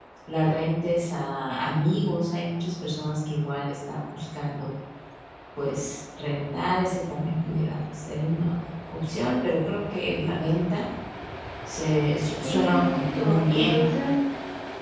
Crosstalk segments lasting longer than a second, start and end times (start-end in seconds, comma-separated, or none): 12.4-13.9